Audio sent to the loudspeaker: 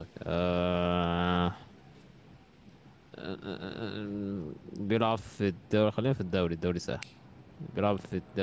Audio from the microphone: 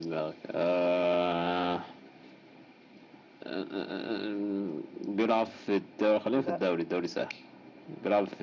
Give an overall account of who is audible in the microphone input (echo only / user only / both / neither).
both